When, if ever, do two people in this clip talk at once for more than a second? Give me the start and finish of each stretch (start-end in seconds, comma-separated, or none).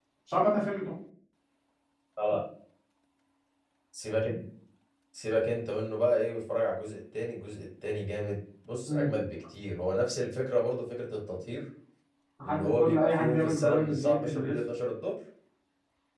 12.4-14.6